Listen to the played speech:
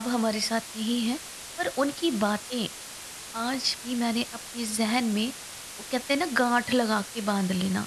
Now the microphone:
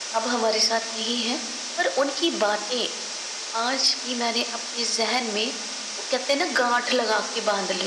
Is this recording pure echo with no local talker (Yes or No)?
Yes